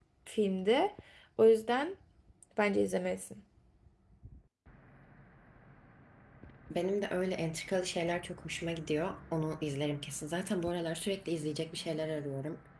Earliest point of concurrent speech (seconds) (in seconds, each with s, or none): none